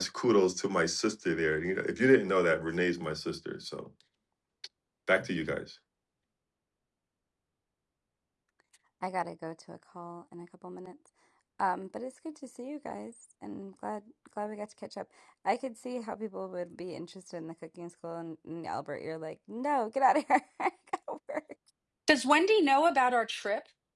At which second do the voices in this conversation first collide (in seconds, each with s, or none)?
none